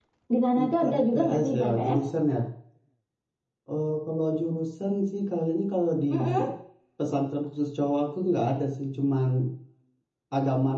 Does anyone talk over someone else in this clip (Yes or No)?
Yes